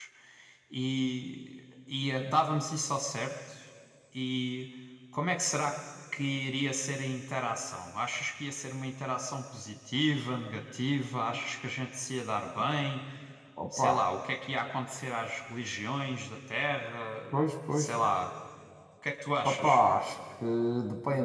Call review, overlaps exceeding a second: none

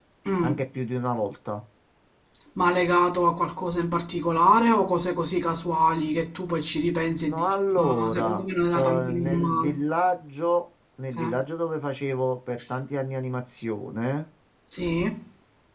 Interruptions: present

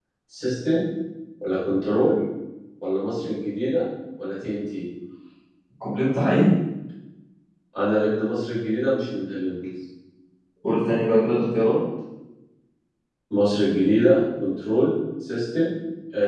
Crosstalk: none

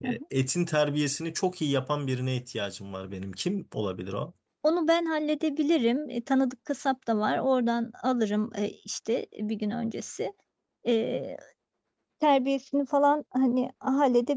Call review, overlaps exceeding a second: none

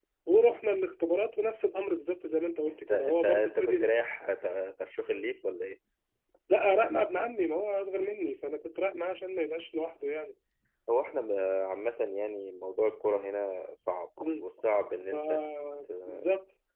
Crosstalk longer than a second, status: present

